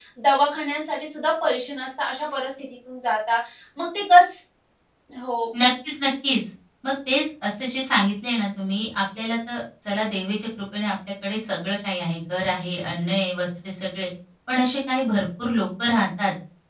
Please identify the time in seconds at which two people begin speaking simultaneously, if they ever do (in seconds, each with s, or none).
none